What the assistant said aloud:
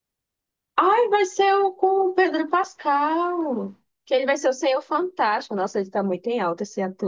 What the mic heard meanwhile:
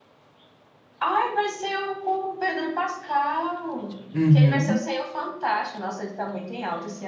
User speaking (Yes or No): Yes